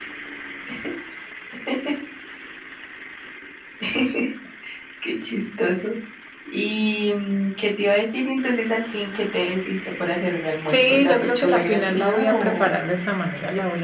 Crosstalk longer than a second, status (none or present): present